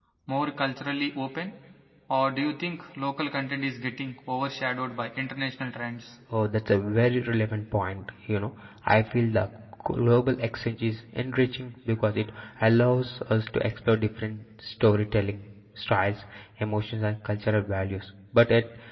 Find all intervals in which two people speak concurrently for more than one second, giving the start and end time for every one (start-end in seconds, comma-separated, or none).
none